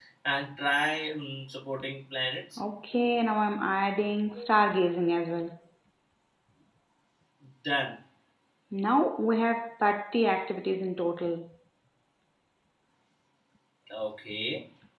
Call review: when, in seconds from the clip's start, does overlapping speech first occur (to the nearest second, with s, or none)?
none